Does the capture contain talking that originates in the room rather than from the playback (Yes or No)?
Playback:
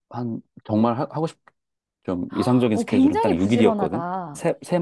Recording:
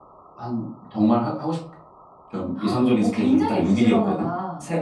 No